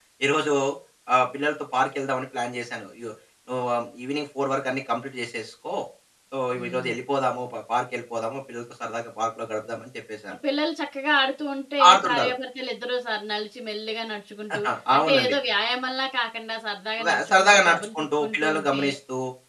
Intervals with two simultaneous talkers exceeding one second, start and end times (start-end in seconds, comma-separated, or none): 17.0-18.8